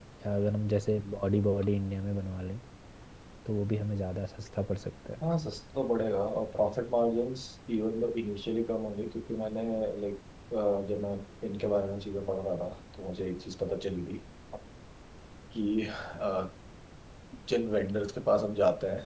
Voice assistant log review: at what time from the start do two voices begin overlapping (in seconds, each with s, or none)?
none